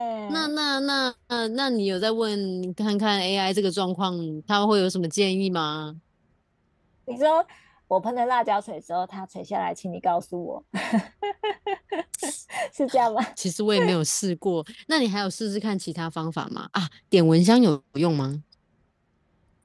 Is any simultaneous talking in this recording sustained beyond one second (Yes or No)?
No